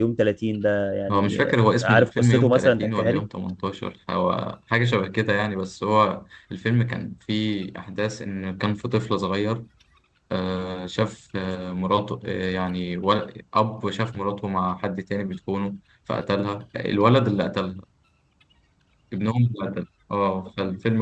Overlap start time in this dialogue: 1 s

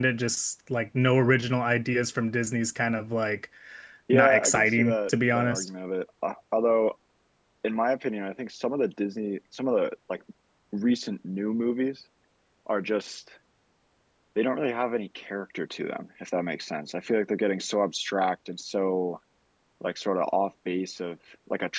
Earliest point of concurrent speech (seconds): 4 s

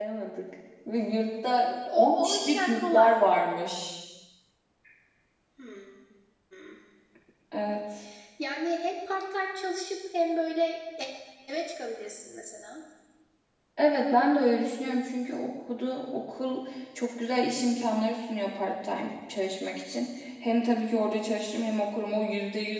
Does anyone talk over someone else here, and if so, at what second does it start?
2 s

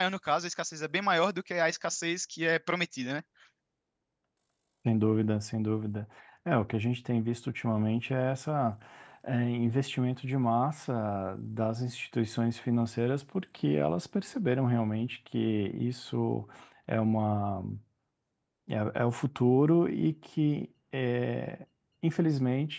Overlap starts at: none

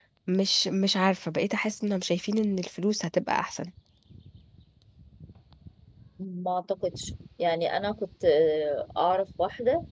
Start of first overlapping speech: none

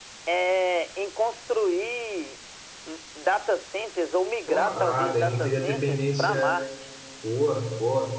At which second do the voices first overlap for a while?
4 s

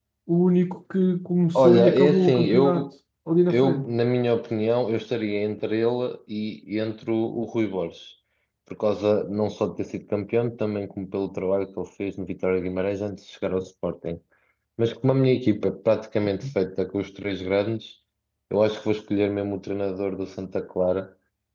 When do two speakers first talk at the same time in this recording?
2 s

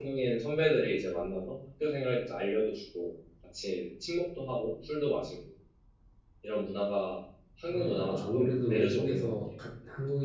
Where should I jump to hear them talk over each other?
8 s

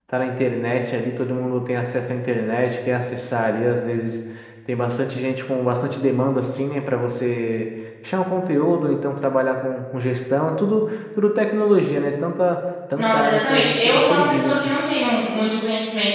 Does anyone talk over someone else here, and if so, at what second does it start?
13 s

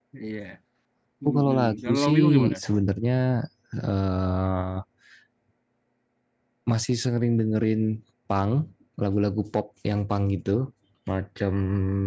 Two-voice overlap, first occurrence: 1 s

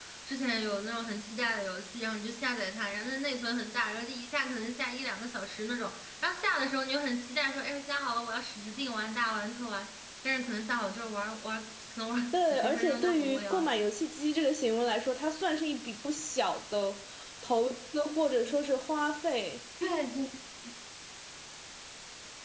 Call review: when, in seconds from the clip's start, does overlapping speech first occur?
12 s

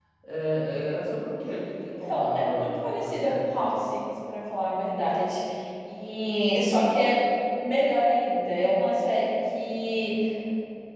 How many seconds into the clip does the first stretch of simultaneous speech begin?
2 s

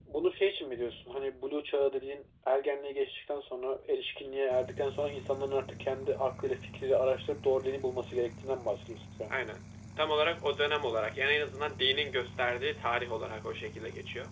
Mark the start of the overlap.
none

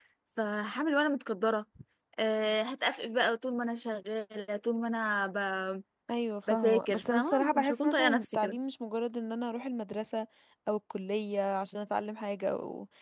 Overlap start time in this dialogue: 7 s

